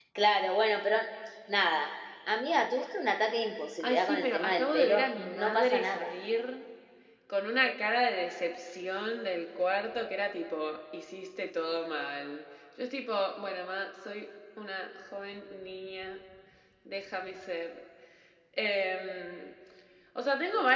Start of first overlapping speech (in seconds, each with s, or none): 3.8 s